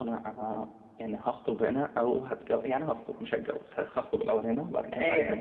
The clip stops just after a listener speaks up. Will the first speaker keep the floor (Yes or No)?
Yes